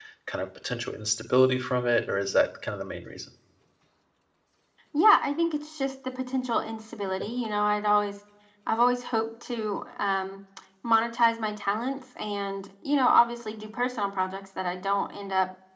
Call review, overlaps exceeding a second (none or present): none